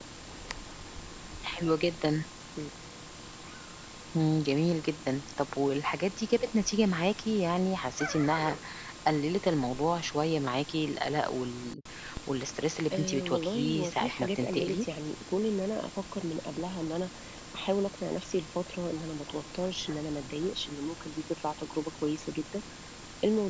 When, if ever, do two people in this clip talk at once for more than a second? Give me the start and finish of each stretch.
12.9-14.8

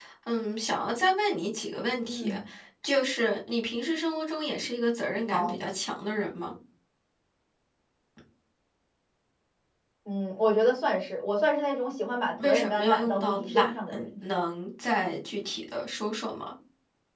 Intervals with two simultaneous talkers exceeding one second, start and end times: 12.4-13.7

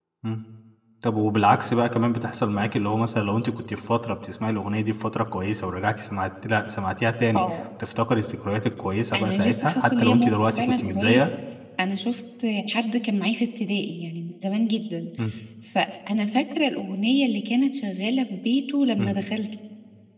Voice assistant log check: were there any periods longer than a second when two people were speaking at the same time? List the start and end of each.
9.2-11.2

